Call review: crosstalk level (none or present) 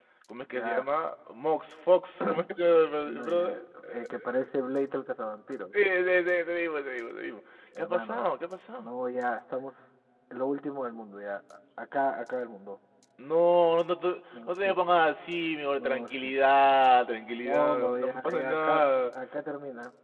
present